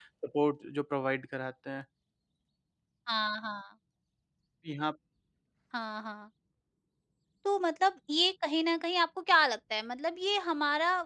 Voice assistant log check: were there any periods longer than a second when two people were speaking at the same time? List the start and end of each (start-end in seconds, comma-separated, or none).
none